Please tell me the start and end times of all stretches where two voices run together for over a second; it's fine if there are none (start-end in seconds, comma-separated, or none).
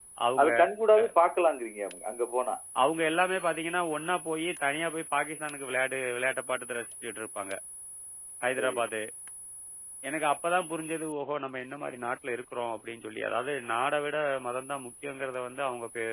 none